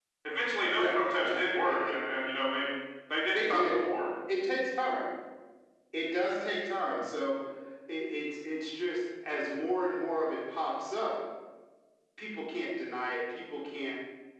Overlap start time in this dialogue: 0.7 s

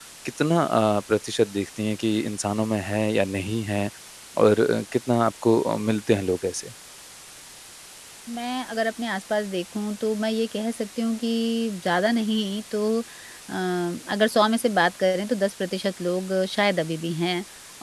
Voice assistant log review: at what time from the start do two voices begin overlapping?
none

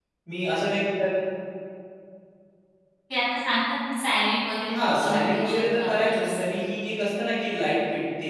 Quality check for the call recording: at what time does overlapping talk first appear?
4.7 s

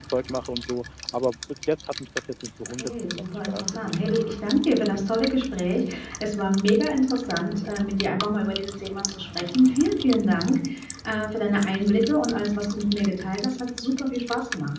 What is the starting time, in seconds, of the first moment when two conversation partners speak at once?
2.8 s

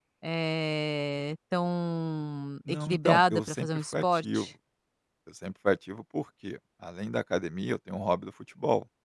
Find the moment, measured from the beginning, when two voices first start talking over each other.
2.7 s

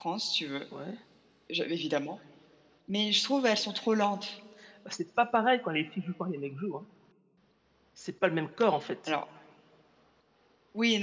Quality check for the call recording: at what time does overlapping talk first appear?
none

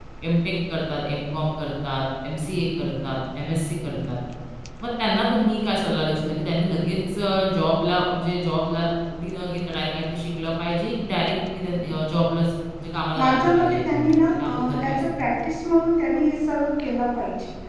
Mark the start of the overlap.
13.2 s

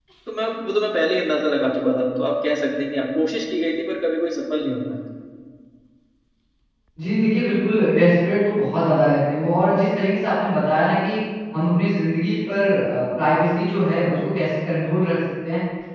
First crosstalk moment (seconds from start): none

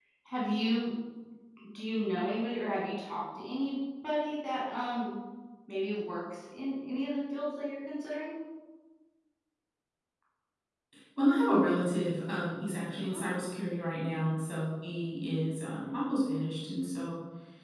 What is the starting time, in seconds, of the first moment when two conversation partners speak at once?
none

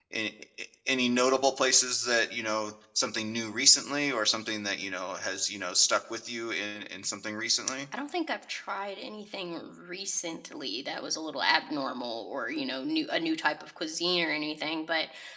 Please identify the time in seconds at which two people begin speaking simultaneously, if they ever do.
none

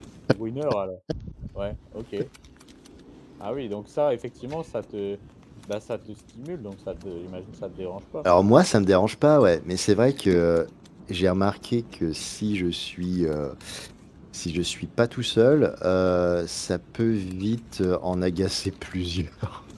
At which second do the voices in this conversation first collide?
none

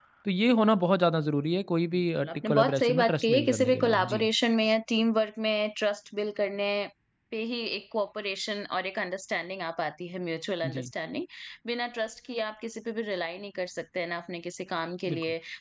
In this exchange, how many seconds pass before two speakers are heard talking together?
1.9 s

